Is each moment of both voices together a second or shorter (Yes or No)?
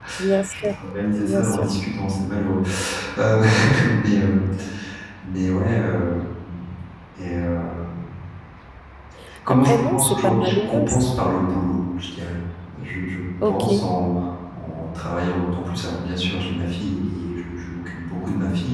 No